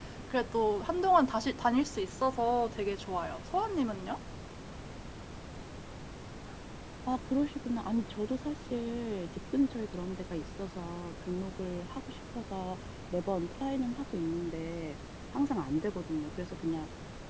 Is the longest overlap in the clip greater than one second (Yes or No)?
No